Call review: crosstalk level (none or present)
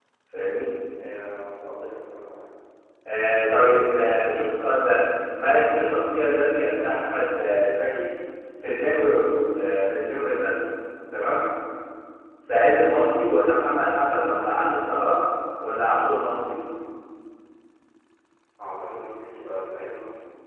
none